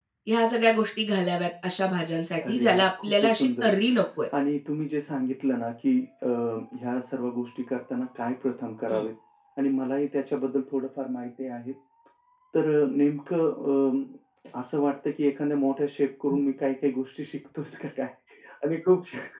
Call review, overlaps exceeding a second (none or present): present